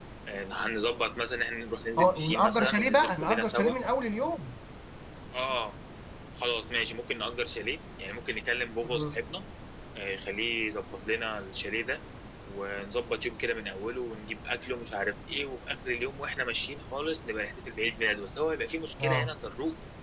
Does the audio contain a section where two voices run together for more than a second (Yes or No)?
Yes